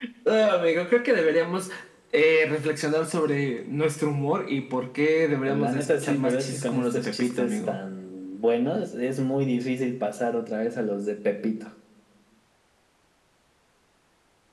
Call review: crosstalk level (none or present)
present